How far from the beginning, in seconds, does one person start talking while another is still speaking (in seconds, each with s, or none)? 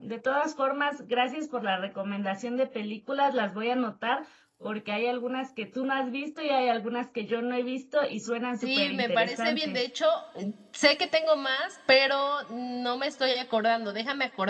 8.6 s